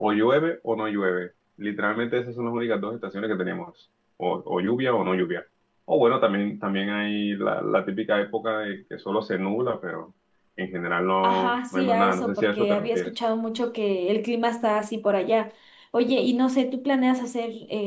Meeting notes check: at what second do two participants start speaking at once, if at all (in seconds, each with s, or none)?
11.2 s